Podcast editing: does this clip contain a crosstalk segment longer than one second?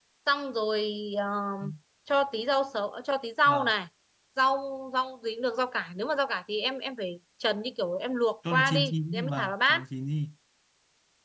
Yes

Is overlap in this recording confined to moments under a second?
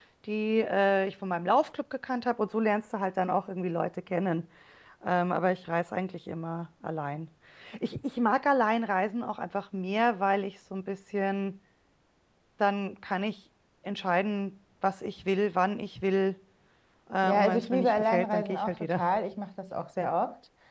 No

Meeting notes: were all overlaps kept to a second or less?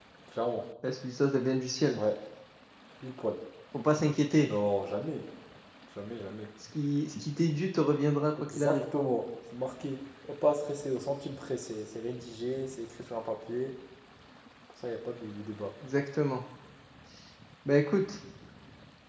Yes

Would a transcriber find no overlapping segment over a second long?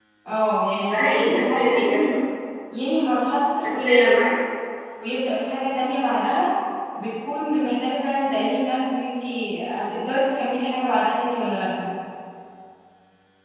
No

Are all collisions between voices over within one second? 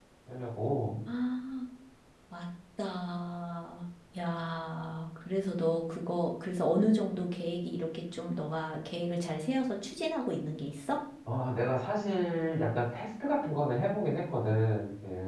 Yes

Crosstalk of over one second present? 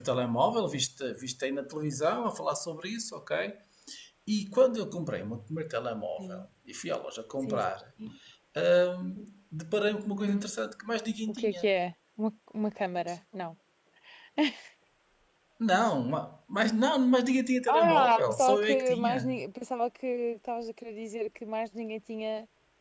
Yes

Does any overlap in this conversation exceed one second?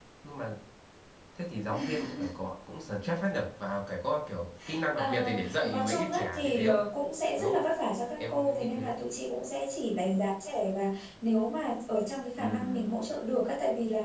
Yes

